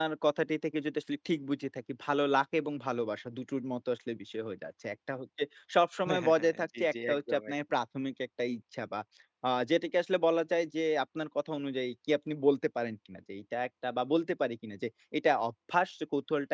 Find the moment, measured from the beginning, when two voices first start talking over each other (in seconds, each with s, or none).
6.1 s